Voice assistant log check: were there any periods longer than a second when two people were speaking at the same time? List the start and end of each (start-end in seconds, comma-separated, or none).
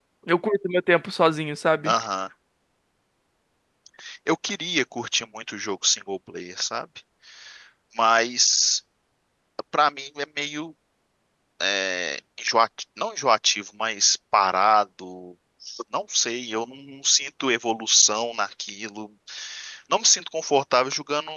none